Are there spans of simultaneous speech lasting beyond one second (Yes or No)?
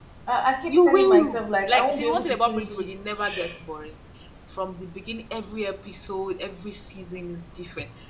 Yes